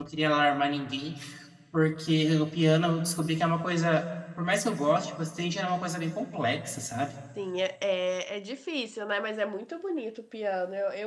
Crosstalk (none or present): none